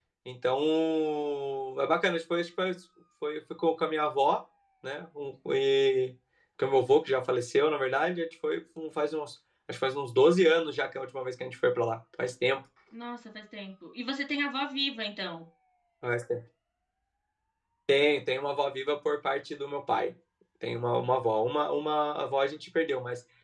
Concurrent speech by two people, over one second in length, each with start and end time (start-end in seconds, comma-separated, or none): none